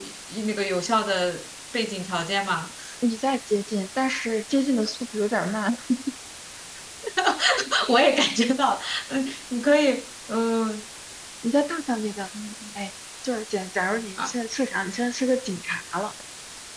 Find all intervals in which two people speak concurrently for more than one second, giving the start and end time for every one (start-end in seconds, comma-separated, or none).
none